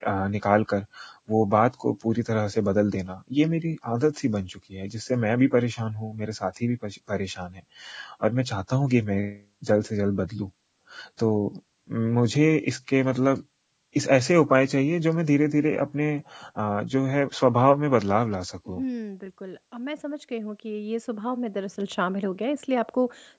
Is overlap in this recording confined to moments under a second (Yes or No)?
Yes